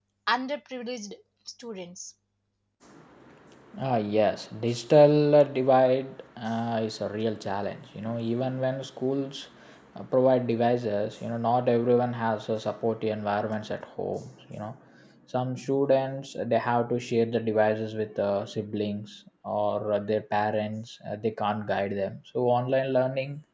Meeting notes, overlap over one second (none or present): none